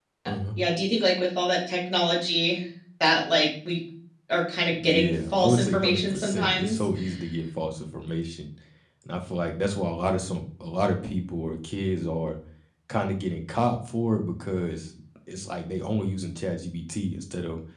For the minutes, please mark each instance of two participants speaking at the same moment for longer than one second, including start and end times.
4.8-6.9

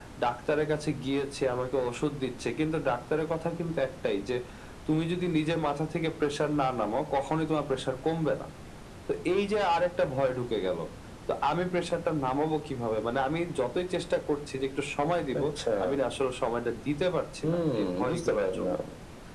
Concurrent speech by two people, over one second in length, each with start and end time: 17.4-18.8

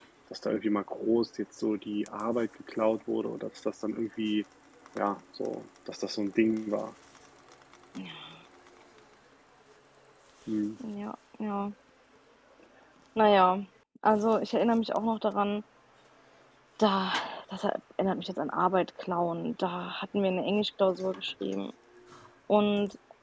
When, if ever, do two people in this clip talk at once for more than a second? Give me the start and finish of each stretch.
none

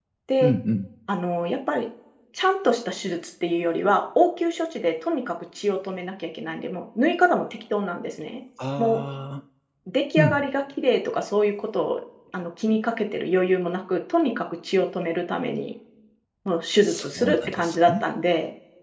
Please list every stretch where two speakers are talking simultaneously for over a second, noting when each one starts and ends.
16.8-18.0

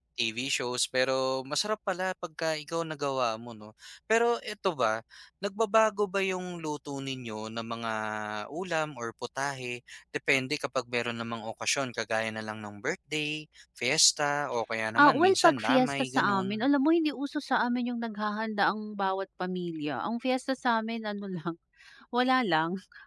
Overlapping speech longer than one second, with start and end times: 15.0-16.6

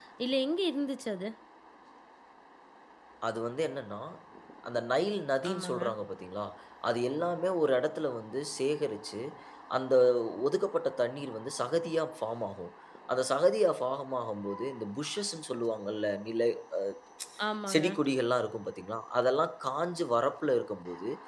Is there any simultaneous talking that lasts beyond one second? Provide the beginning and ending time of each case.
none

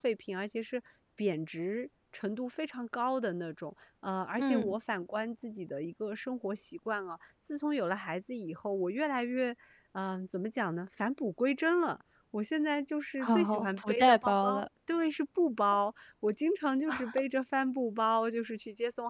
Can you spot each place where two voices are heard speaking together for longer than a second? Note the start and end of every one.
13.2-14.7

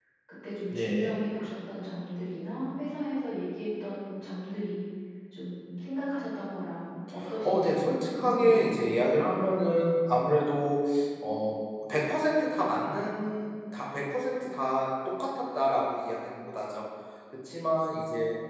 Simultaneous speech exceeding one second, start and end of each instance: 7.4-8.9

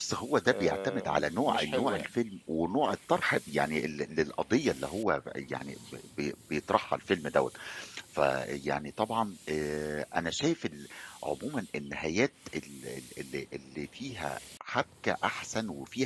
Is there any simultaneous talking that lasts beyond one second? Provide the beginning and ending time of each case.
0.5-2.1

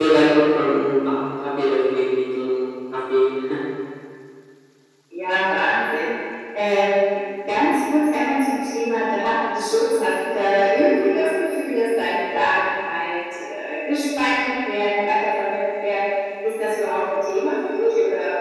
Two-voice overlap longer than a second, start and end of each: none

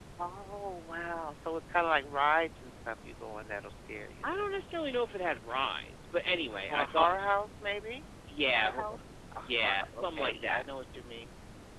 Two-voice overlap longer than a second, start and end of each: 9.4-10.6

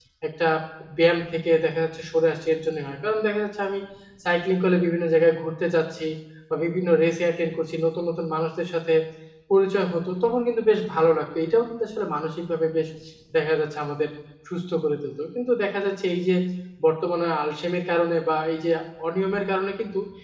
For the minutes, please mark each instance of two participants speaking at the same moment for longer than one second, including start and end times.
none

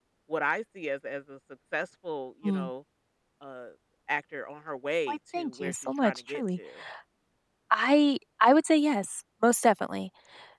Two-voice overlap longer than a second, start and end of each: 5.1-6.6

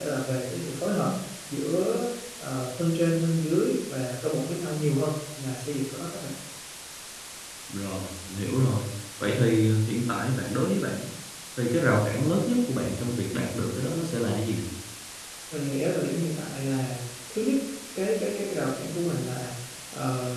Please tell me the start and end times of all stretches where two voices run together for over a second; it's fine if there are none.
none

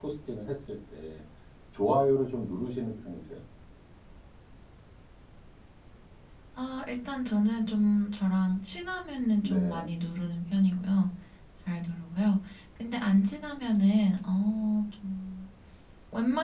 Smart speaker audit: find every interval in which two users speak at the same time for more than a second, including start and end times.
none

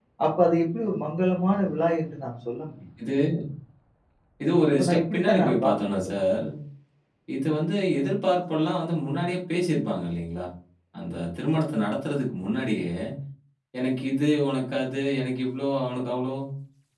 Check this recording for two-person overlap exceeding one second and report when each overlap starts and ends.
4.8-6.2

